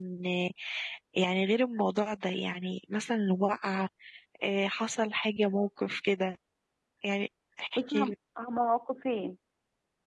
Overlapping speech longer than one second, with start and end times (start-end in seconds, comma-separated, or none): none